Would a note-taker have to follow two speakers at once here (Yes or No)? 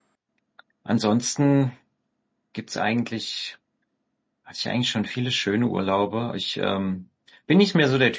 No